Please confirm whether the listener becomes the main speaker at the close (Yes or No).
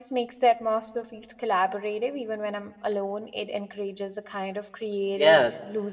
Yes